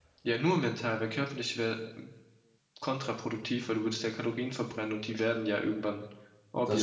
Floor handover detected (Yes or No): No